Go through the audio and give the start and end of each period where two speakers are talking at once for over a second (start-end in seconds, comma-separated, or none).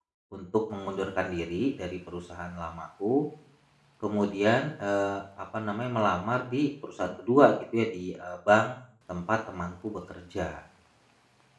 none